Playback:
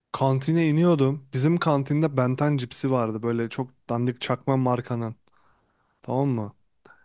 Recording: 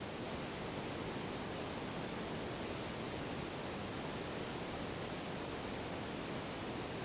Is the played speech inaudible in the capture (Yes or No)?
Yes